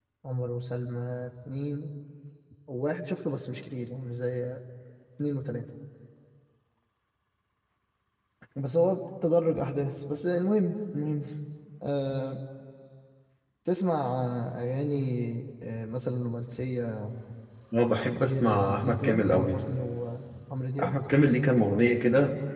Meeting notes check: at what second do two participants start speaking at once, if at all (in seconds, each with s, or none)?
18.2 s